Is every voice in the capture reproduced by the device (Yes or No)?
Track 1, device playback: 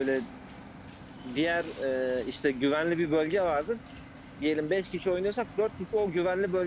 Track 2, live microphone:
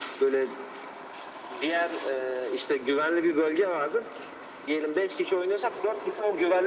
Yes